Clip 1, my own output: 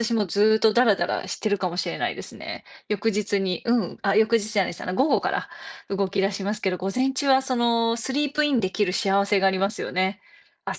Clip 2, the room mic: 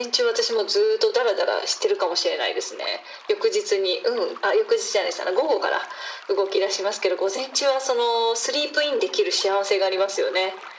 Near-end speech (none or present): none